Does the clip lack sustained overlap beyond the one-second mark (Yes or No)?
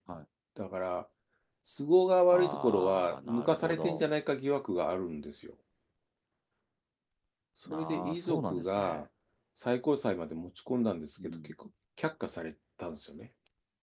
No